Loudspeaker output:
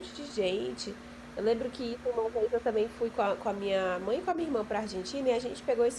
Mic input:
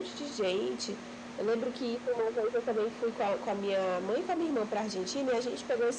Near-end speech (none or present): none